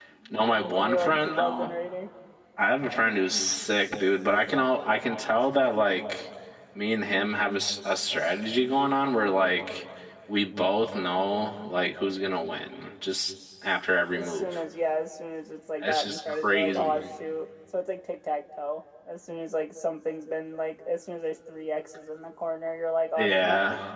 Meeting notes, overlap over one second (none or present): present